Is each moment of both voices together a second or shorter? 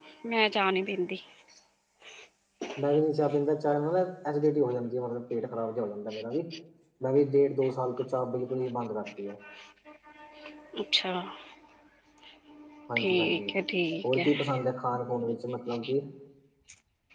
Yes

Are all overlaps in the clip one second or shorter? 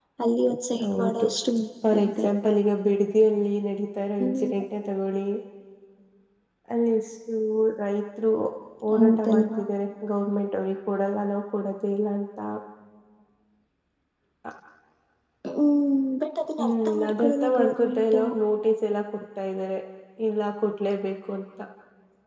No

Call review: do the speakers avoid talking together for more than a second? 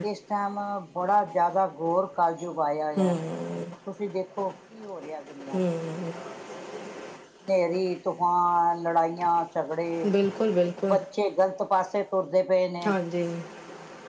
Yes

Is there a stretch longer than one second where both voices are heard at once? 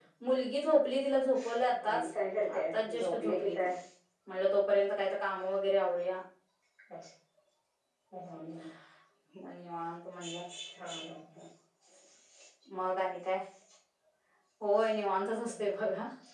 Yes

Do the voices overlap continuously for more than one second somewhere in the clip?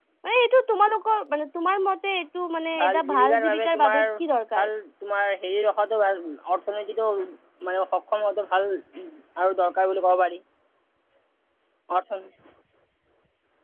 Yes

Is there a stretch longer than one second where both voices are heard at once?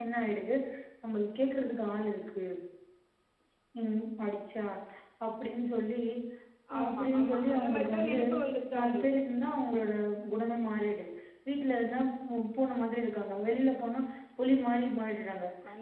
Yes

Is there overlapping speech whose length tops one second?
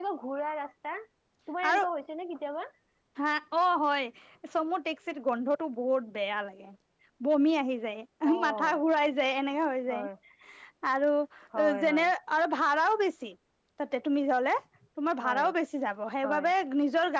No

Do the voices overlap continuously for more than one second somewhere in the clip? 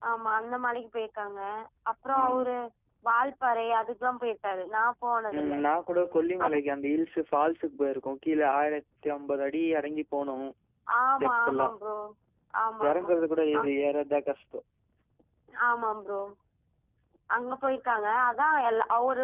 No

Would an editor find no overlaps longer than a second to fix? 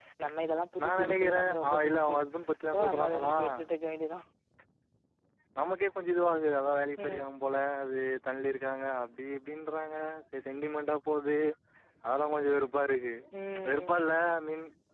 No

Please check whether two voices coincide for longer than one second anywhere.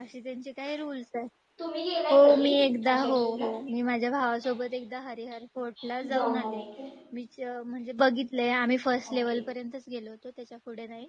Yes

